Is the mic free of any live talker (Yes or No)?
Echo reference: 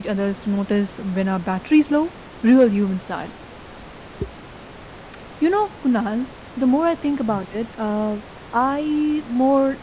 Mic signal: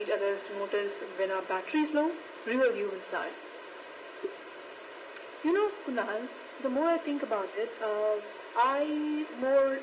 Yes